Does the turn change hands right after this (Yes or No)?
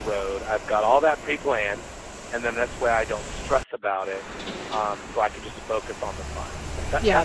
Yes